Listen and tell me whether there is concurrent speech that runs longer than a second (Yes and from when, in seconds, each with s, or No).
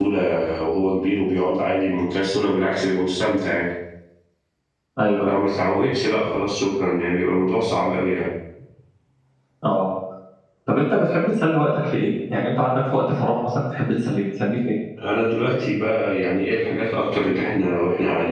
No